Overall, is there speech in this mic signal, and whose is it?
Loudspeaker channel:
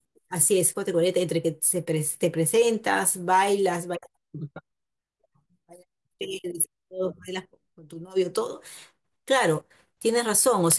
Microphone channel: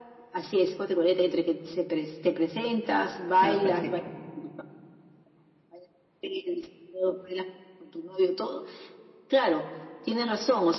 both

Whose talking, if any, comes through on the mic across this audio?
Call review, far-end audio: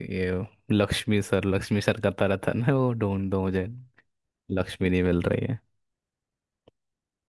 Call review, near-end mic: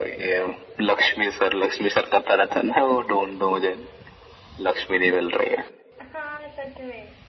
both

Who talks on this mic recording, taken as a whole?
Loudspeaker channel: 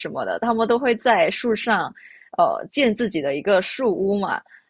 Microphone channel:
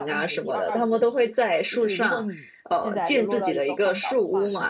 both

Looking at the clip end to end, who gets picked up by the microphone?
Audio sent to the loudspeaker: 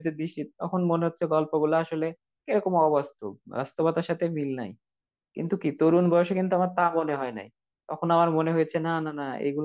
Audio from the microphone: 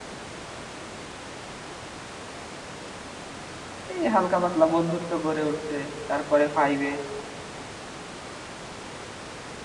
user only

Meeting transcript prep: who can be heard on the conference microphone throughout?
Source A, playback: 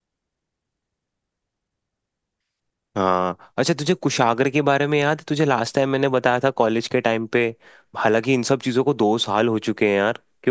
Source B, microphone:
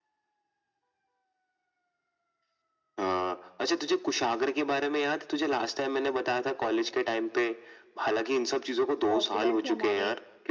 both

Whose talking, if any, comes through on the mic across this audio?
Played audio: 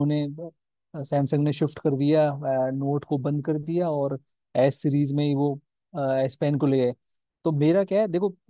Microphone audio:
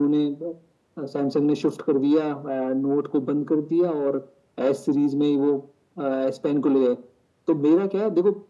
echo only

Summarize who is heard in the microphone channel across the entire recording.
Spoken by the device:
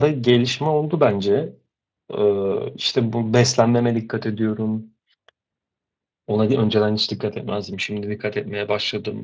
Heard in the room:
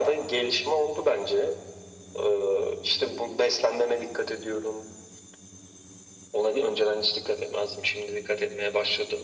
echo only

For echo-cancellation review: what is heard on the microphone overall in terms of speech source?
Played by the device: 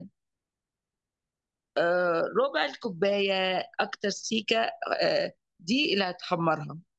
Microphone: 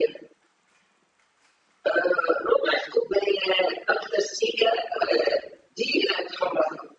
echo only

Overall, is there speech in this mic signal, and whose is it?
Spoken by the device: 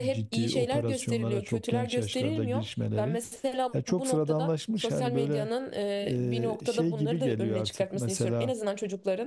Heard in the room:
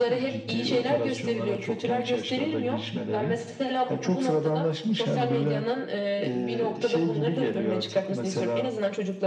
echo only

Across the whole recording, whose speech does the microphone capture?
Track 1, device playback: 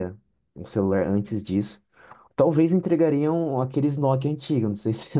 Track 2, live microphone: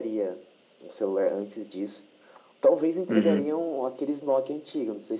both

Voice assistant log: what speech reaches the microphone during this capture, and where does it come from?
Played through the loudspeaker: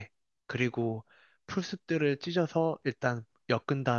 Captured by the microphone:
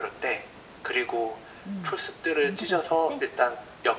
both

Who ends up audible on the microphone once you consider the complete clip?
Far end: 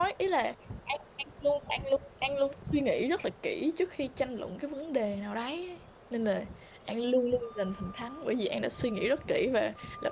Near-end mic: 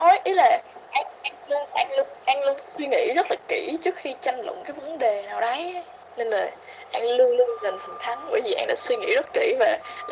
echo only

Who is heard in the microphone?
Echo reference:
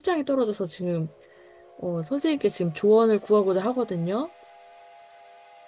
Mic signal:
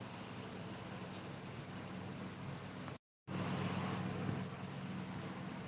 neither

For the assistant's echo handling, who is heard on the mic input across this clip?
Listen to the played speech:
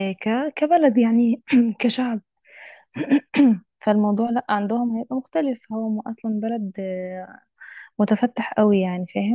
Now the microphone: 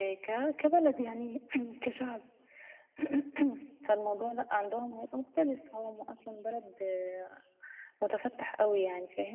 echo only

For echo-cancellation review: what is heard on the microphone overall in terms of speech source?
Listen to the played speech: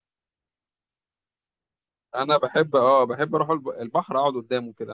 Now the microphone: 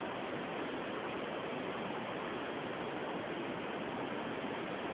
neither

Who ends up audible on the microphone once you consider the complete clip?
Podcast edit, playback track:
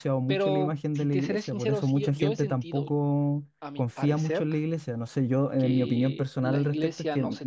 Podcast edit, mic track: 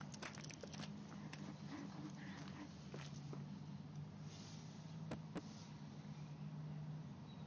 neither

